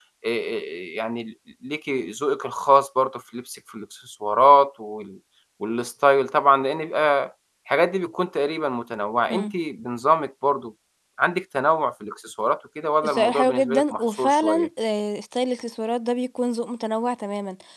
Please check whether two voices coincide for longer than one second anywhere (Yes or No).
Yes